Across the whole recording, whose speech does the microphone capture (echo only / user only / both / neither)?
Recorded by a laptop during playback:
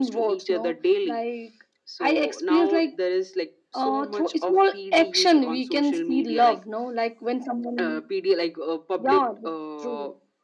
echo only